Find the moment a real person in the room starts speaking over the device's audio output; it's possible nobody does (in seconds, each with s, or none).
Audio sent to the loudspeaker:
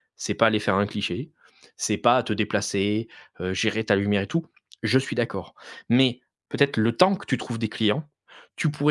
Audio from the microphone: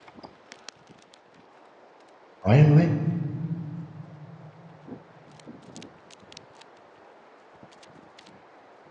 2.4 s